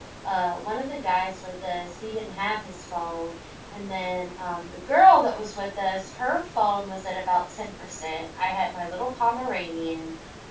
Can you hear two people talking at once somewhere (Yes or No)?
No